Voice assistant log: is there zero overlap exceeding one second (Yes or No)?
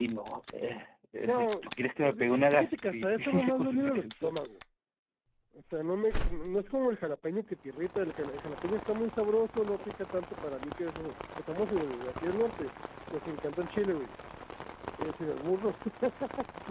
No